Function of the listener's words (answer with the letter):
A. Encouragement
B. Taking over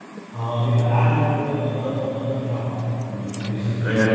B